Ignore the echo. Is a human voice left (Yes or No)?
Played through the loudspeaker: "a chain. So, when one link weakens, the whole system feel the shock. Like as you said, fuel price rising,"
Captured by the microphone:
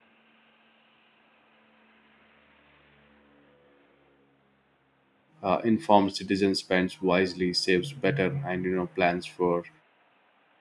Yes